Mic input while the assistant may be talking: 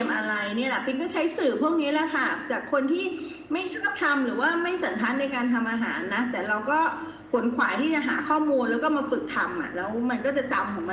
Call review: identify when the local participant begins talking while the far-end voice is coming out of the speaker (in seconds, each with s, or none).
none